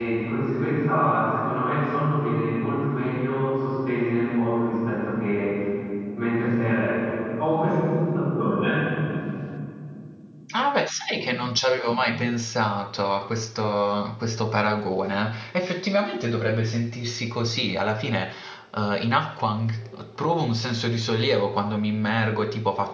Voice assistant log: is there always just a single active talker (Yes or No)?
Yes